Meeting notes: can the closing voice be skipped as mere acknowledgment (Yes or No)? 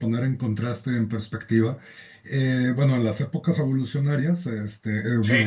Yes